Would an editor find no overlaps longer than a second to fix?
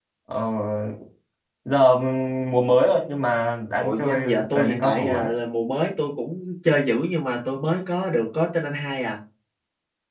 No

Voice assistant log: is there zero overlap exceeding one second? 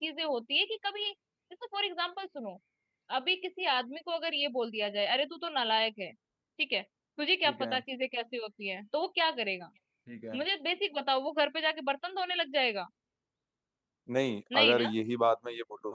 Yes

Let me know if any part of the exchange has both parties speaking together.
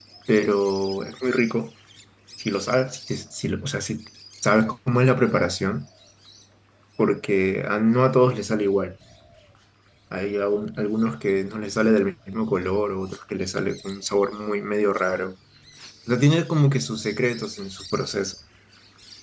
No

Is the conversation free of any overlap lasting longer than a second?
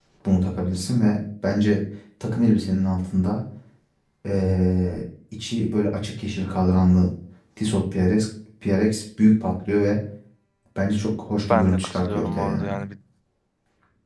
No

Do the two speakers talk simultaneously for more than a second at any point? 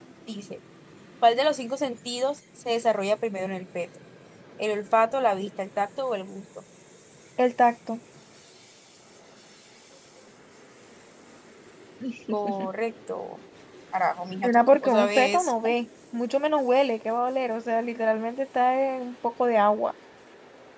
Yes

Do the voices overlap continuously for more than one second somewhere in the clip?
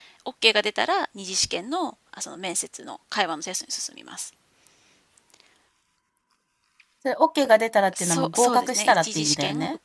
Yes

